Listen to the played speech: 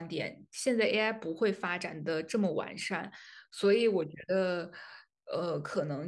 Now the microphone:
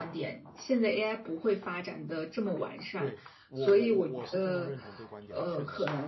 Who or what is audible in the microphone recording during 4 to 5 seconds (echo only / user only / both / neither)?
both